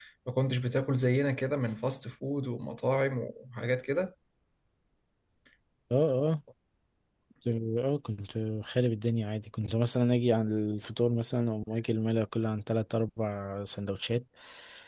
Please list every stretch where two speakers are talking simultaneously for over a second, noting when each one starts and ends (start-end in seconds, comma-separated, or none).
none